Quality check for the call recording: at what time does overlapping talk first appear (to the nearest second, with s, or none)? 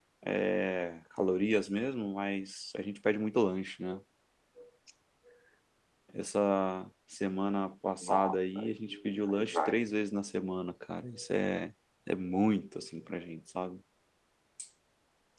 8 s